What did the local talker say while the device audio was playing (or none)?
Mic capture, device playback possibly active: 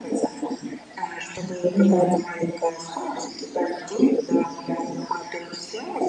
Понимаю,